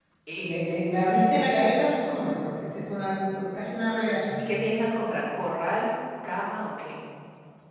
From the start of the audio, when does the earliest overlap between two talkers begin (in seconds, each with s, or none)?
none